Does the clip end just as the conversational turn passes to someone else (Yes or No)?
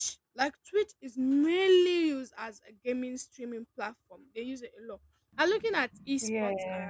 No